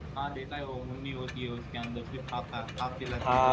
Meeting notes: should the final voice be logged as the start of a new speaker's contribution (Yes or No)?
Yes